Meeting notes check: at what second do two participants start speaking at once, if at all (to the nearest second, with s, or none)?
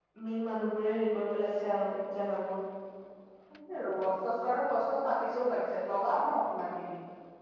none